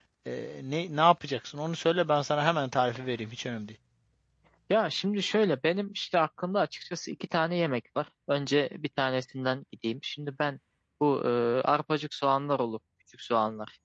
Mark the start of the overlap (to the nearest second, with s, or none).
none